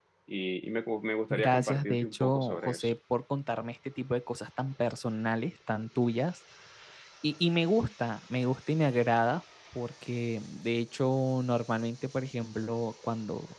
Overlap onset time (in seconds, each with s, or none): 1.3 s